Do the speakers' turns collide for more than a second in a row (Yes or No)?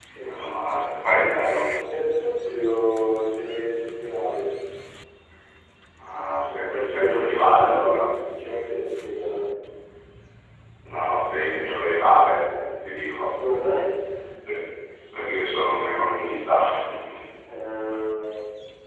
Yes